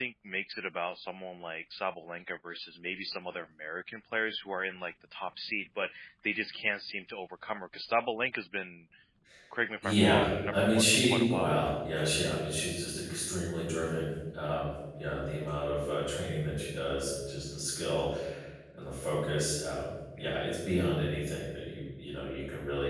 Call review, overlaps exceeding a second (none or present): present